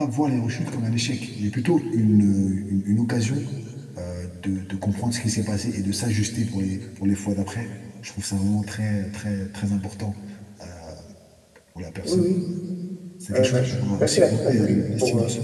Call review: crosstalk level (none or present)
present